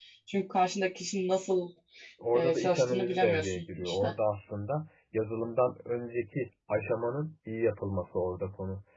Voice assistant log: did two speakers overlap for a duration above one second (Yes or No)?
Yes